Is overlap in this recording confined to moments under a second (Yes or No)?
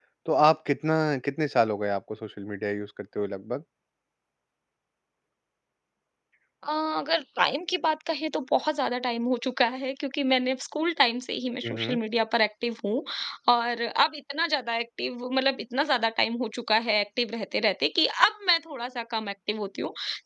Yes